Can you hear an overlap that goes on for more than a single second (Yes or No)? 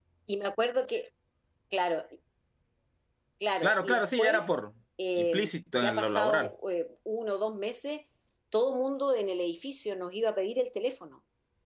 Yes